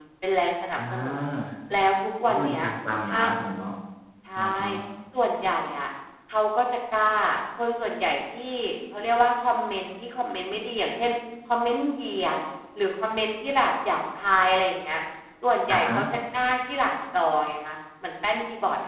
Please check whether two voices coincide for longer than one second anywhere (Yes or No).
No